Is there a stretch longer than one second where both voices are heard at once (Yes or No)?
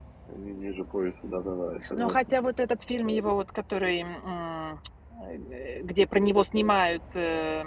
No